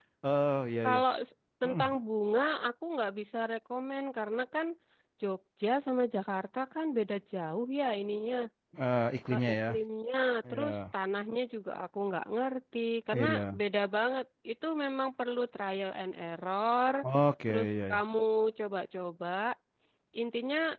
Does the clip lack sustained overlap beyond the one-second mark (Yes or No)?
Yes